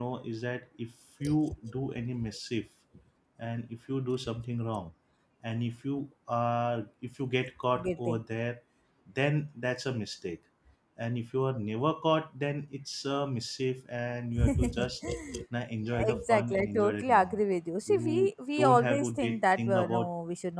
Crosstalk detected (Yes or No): Yes